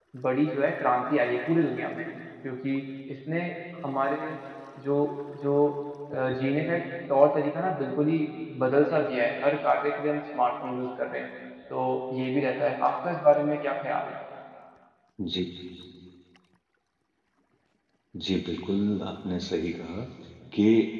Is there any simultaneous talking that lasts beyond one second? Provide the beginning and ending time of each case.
none

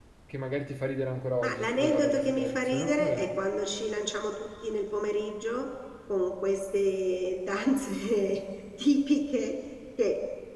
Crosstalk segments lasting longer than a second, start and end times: 1.4-3.3

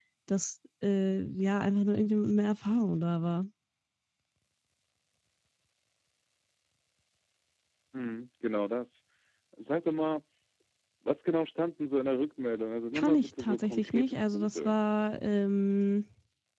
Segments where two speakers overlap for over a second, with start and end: 12.9-14.8

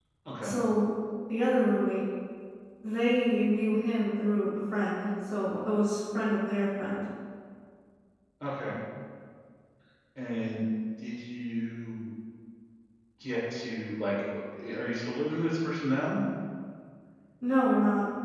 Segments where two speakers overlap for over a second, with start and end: none

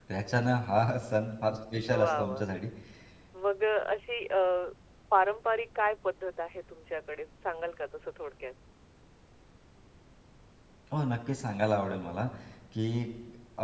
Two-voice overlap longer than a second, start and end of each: none

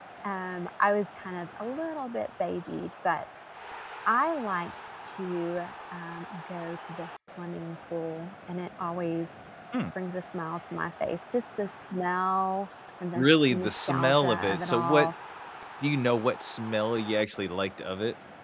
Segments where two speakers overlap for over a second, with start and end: 13.1-15.1

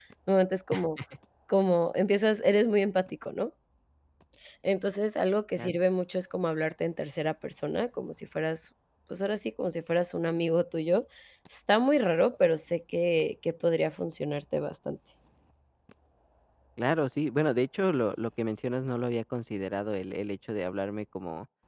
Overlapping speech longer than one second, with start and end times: none

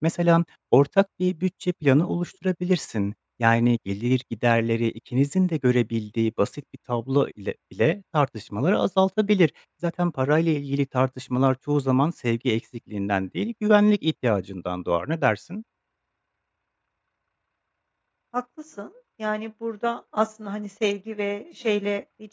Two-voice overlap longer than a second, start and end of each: none

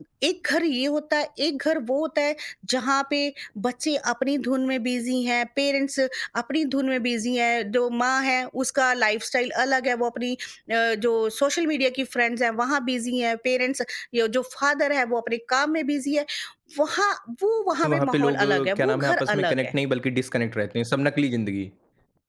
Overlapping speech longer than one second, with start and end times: 17.9-19.7

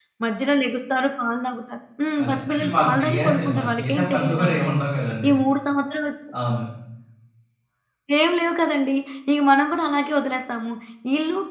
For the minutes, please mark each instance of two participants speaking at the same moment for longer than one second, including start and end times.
2.2-4.6

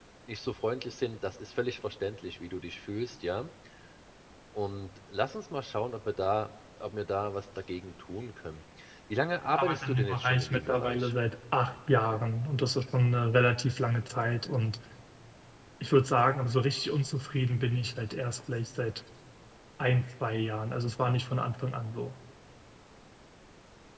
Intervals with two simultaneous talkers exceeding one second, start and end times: 9.5-11.1

